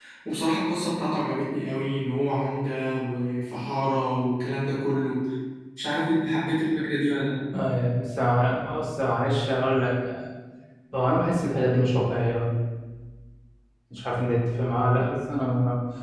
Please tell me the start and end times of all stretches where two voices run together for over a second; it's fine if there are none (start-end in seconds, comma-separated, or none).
none